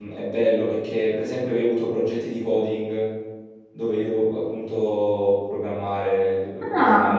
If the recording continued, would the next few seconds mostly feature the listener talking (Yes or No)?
No